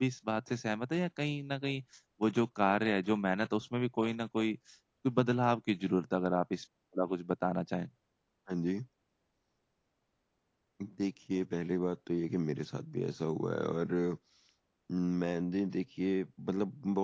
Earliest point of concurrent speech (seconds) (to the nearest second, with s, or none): none